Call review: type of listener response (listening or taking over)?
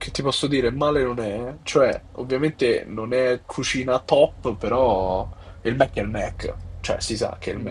taking over